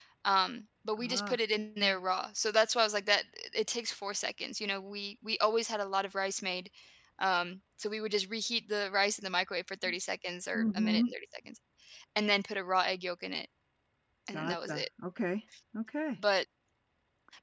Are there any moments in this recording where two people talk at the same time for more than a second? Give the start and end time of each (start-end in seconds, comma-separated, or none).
none